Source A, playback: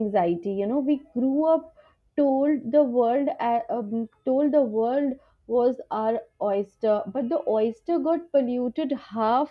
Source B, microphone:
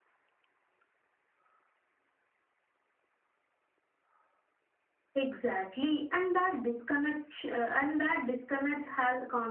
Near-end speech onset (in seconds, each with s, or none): 5.2 s